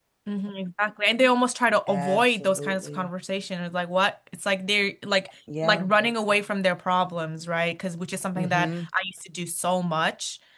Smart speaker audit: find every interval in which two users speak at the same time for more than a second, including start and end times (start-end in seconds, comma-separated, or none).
1.9-3.1